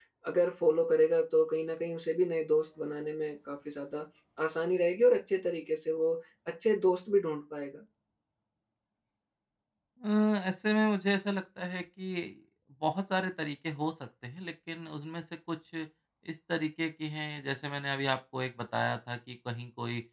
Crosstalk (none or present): none